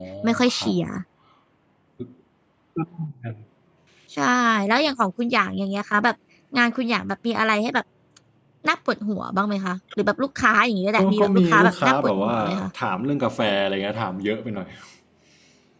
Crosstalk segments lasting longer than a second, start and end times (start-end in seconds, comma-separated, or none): 11.0-12.4